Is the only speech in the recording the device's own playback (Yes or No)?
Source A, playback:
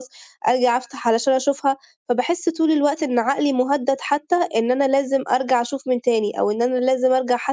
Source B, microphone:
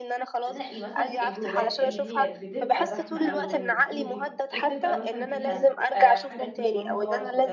No